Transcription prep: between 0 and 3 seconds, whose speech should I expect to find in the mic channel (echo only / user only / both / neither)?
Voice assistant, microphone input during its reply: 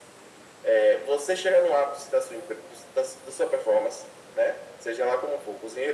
echo only